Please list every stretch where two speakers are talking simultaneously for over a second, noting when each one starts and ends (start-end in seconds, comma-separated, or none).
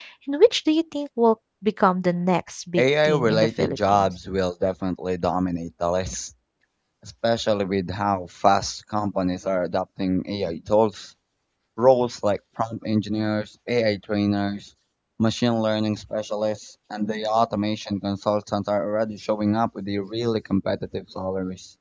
2.8-4.1